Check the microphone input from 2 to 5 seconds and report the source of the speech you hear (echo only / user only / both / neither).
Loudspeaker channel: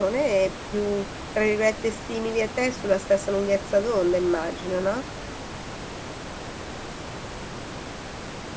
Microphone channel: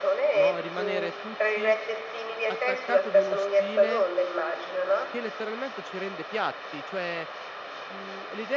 both